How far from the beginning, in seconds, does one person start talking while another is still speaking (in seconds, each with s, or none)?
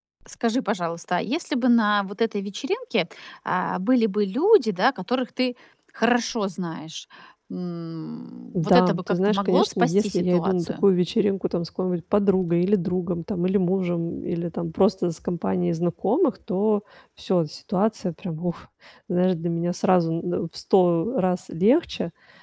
8.5 s